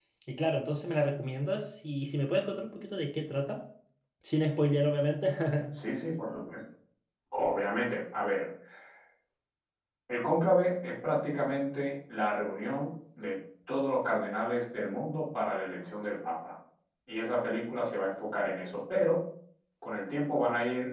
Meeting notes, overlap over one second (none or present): none